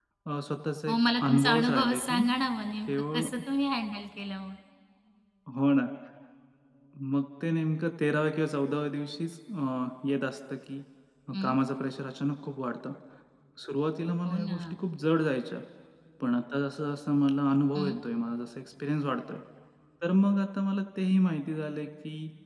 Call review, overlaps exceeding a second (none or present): present